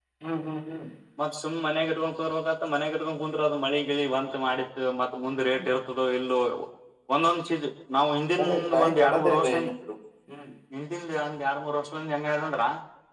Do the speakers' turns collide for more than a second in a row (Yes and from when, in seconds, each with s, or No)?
Yes, from 8.4 s